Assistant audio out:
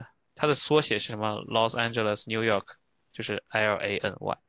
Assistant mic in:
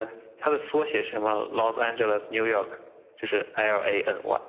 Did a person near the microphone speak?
No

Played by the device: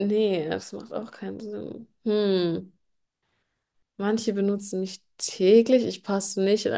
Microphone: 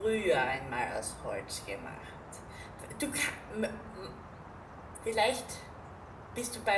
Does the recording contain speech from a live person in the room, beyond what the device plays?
Yes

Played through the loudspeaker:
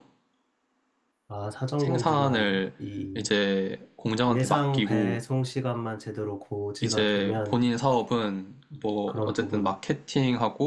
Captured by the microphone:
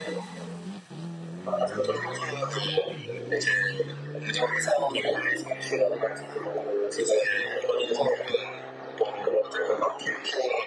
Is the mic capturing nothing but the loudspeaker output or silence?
Yes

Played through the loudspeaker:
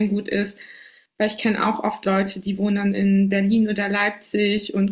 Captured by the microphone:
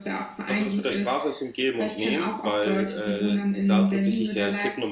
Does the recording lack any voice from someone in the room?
No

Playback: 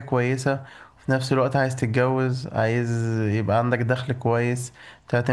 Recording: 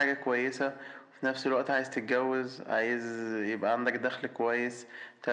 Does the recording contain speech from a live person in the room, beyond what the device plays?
No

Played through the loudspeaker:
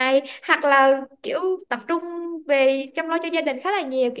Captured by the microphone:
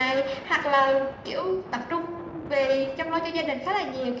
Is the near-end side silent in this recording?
Yes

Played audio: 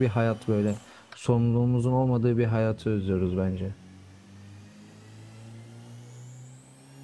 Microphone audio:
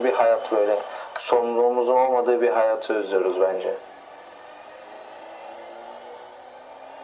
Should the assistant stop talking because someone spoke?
No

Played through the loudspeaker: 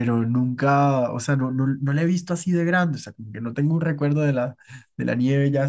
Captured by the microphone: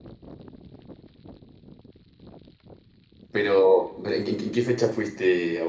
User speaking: Yes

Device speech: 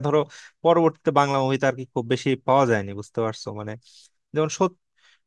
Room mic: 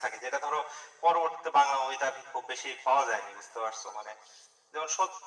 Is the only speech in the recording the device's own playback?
Yes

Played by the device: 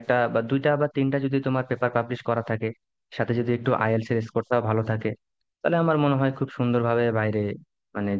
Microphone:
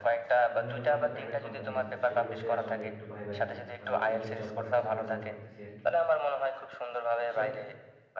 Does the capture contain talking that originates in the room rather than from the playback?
Yes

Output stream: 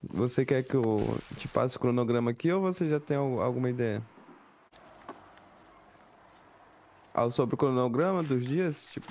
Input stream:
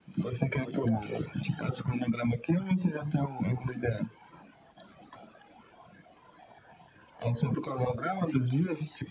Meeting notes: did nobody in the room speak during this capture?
No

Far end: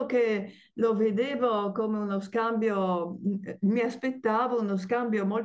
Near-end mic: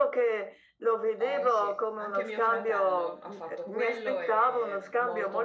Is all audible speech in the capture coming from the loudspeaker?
No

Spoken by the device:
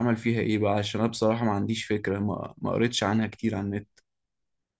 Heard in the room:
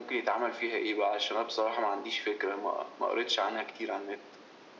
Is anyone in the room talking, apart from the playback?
No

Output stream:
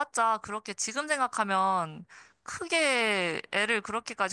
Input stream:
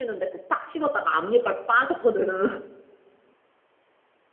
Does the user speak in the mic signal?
Yes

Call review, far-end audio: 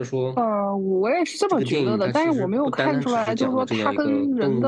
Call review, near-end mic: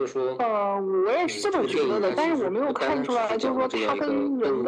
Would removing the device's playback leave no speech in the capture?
No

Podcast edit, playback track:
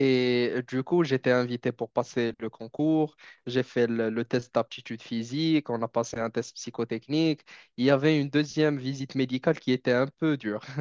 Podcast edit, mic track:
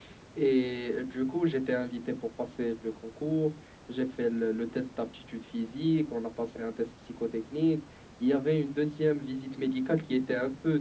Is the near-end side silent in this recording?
Yes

